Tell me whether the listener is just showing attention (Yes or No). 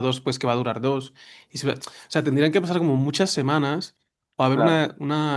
Yes